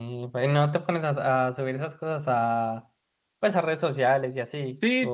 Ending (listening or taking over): taking over